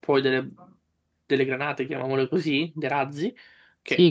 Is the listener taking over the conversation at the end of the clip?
Yes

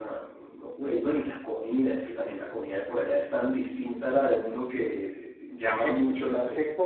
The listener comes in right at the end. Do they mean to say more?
Yes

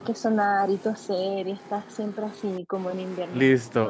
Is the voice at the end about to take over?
Yes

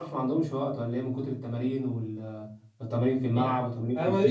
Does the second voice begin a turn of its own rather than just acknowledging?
Yes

